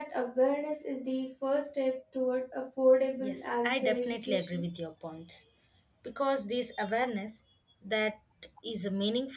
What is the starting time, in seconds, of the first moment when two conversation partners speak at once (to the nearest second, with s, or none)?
3 s